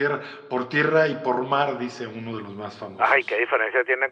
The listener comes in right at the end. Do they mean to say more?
Yes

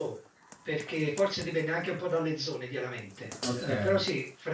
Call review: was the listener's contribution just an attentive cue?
Yes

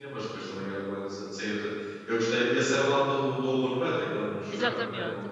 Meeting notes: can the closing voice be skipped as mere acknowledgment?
No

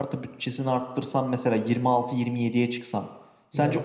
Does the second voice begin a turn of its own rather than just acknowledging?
No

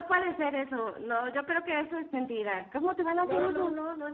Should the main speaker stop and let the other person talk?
Yes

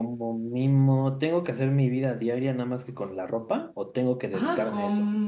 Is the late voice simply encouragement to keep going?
No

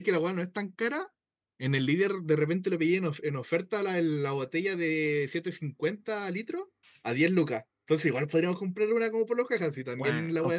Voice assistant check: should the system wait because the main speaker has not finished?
No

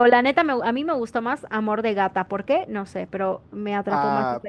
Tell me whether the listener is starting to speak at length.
Yes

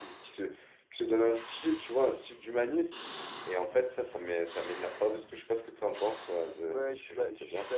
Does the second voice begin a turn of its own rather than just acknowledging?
Yes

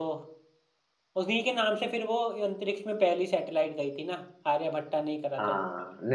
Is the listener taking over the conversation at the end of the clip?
Yes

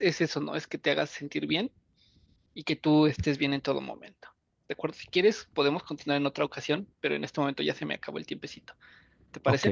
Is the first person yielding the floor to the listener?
Yes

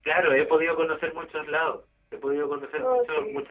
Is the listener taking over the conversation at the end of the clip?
No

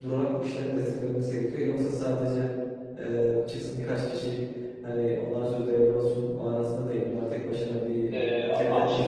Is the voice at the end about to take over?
Yes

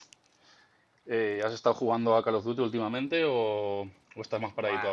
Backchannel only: No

